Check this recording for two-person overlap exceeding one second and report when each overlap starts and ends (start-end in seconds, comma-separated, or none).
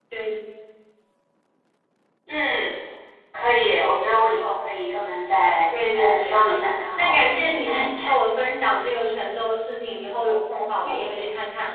6.0-8.1